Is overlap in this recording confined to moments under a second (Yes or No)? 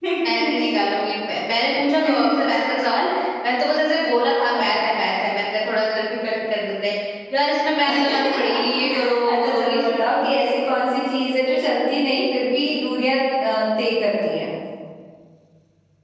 No